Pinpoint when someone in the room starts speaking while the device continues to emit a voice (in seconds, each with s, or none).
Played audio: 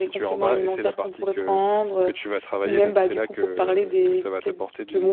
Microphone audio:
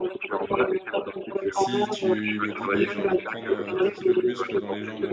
1.5 s